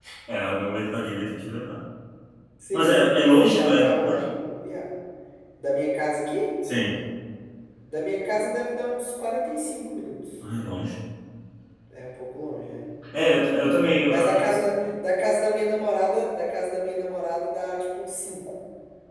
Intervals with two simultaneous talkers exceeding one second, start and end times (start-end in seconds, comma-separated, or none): 2.7-4.2